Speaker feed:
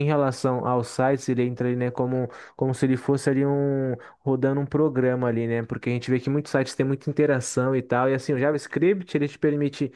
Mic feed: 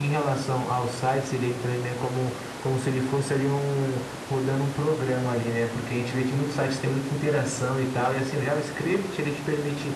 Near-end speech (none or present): none